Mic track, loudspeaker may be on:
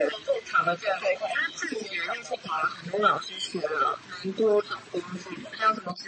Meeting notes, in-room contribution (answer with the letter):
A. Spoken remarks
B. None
B